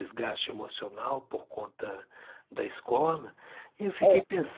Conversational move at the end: listening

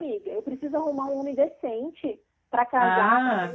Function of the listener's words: taking over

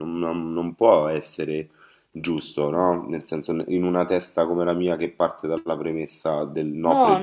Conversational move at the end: taking over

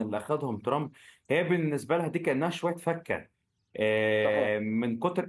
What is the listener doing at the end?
listening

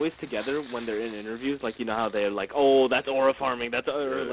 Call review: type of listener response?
taking over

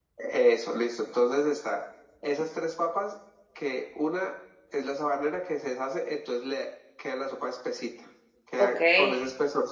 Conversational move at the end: listening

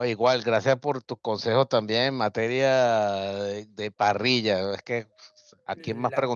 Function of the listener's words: listening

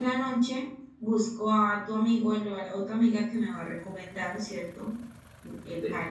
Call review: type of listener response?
taking over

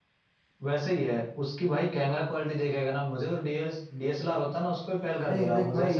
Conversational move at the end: taking over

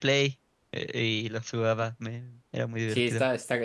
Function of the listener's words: taking over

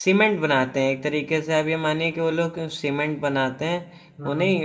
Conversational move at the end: listening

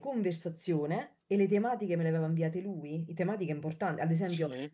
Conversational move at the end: listening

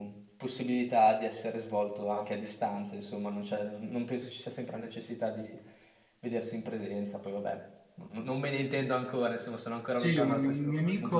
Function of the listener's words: taking over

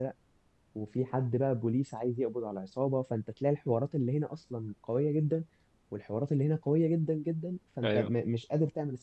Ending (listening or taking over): listening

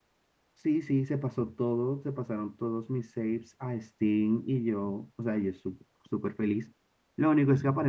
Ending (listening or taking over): listening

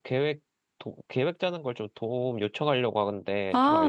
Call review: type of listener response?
taking over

